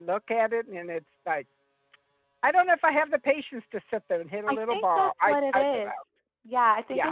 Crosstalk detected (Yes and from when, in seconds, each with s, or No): Yes, from 4.5 s